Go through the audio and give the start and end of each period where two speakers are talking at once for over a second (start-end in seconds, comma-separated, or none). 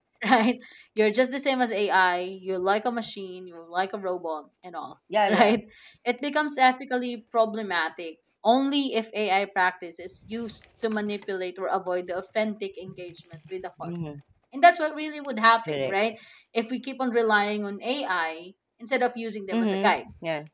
none